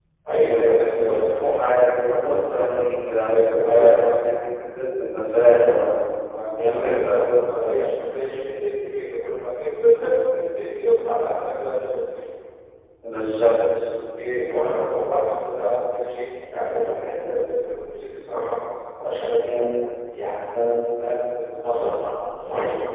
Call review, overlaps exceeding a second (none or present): present